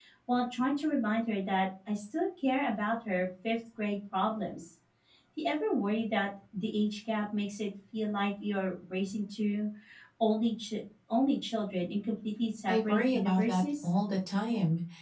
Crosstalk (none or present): present